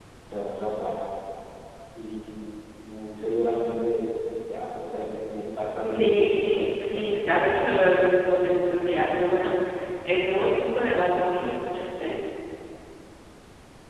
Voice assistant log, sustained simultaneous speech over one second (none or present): present